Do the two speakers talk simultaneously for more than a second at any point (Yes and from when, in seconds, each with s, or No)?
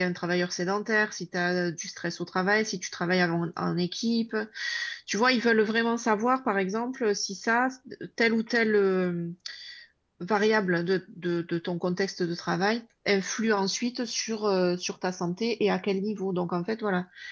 No